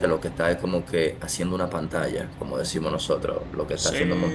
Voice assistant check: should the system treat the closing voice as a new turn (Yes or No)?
Yes